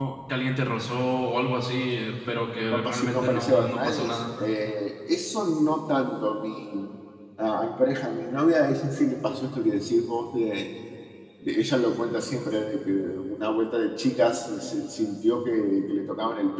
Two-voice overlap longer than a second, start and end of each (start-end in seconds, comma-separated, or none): 2.7-4.2